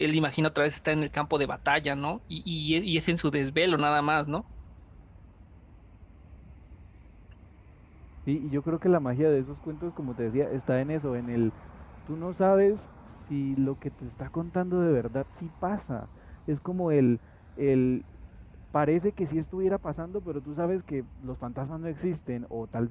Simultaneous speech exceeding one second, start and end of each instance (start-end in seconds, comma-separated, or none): none